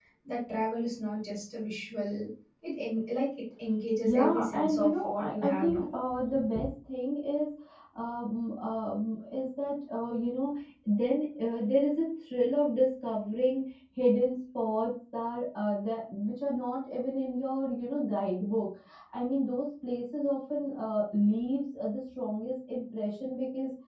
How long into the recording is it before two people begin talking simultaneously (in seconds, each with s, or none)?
4.0 s